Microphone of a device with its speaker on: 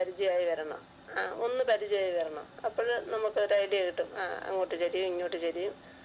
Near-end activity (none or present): none